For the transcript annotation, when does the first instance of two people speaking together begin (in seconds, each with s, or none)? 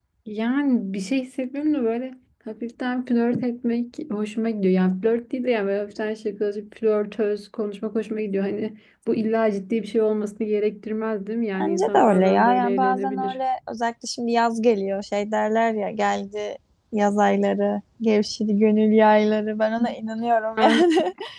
11.6 s